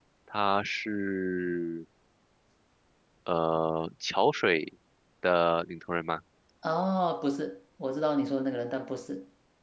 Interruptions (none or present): none